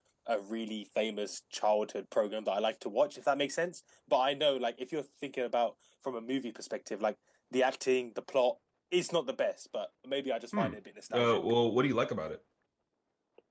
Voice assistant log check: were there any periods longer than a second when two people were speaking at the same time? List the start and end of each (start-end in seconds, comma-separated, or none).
none